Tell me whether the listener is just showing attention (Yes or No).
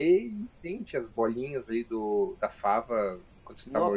No